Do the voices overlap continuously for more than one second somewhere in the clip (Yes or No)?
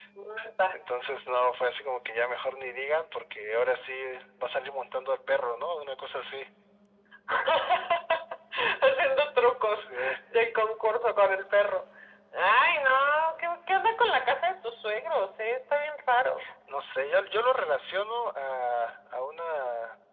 No